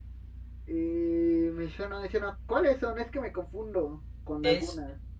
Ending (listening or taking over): taking over